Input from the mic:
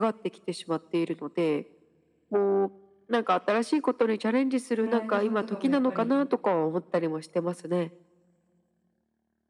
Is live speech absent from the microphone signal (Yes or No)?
No